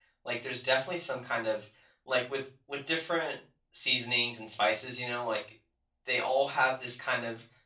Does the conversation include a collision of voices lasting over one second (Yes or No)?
No